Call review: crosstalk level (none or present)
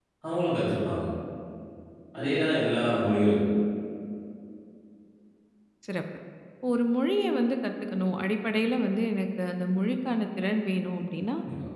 none